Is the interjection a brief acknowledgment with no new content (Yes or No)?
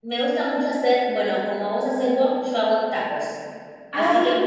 Yes